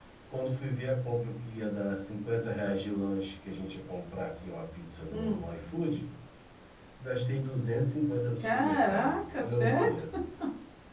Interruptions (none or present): present